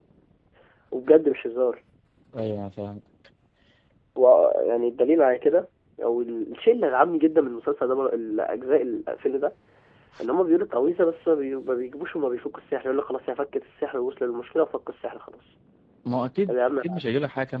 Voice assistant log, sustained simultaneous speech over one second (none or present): none